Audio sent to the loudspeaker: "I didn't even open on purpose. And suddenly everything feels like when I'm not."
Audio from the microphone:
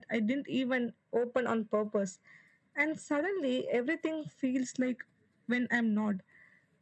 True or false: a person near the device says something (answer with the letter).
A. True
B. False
B